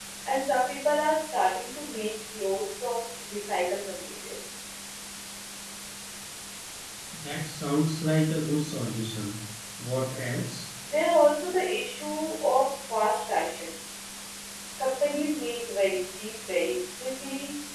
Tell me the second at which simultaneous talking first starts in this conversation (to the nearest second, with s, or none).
none